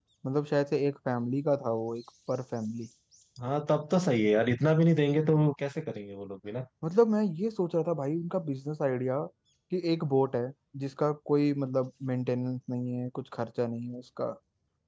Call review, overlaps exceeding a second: none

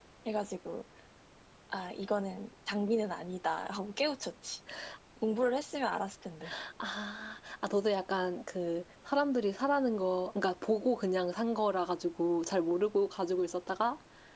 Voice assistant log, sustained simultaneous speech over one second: none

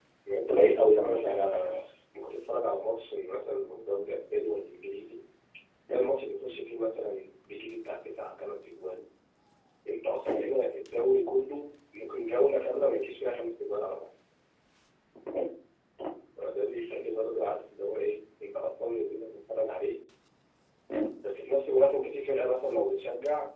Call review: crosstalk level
present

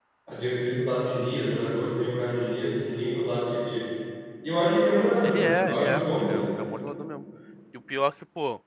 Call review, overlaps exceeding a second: present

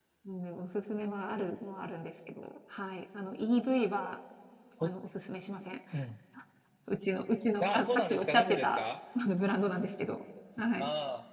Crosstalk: present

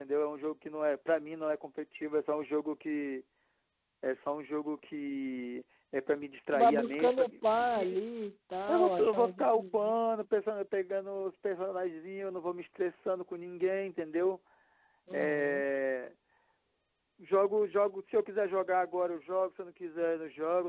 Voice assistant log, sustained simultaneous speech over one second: present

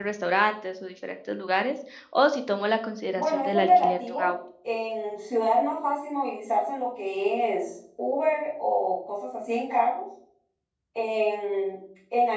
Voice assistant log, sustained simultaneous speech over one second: present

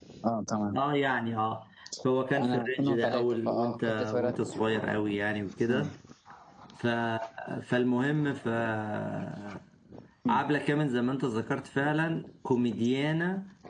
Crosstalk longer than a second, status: present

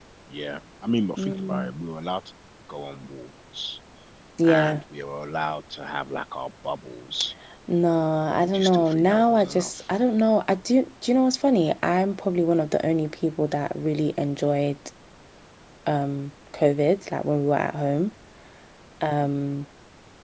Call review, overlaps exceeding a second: present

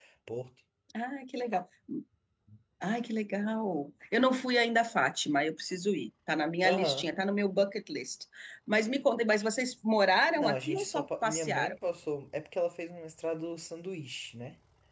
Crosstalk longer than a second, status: present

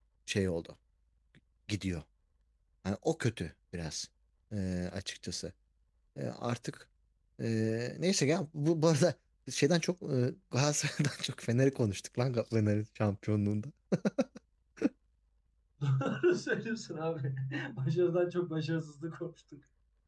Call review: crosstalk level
none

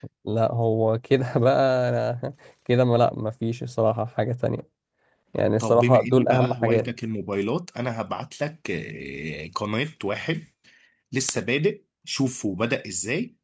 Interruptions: present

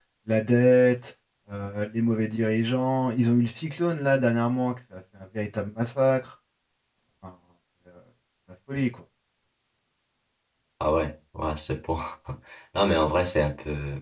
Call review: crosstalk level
none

